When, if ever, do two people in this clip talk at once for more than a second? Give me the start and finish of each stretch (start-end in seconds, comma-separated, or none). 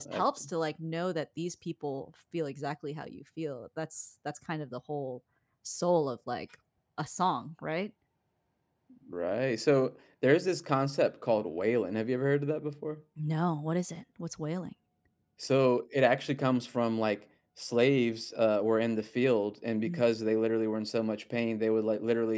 none